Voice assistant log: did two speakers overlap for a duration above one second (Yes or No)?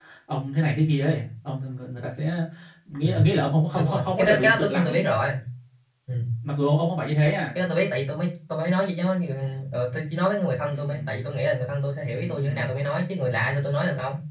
Yes